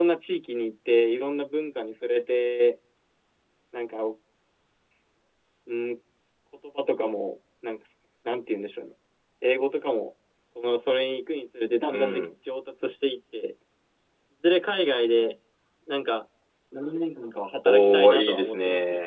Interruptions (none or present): present